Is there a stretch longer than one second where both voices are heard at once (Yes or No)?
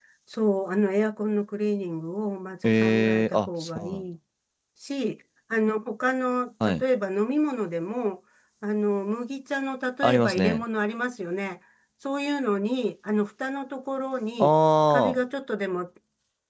Yes